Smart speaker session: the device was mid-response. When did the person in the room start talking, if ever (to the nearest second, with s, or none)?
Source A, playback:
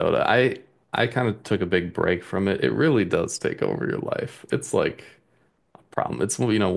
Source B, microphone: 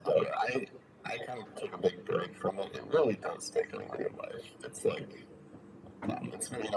none